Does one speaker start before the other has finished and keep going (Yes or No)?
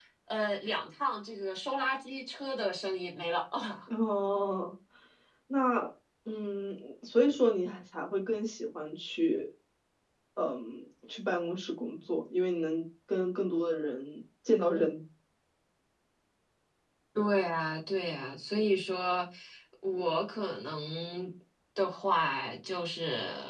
No